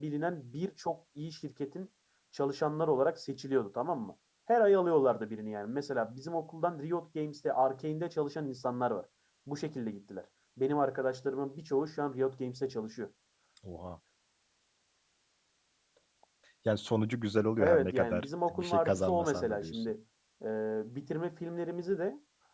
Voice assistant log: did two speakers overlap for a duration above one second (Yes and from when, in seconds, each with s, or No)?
Yes, from 17.6 s